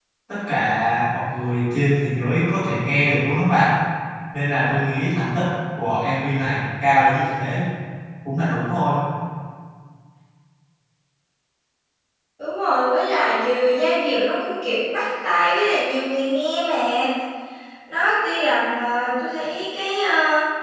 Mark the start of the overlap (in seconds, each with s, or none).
none